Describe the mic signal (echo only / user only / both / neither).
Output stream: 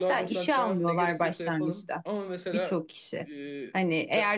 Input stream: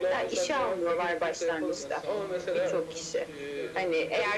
both